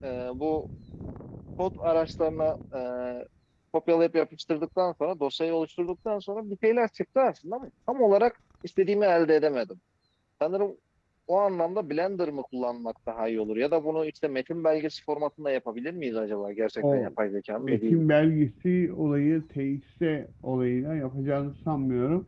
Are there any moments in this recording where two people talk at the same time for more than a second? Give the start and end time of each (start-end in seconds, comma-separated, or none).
none